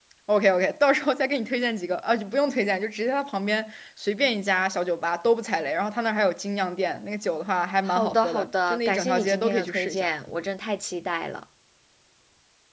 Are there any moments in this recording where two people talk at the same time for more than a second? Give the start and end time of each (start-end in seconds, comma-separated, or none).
7.8-10.1